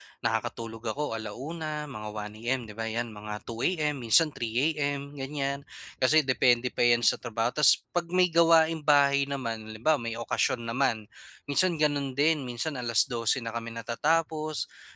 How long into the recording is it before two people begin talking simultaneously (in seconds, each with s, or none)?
none